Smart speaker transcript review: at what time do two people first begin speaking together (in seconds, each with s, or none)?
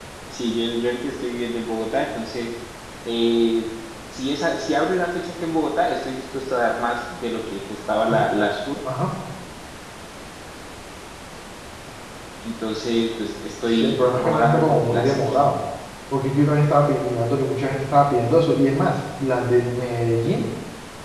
13.7 s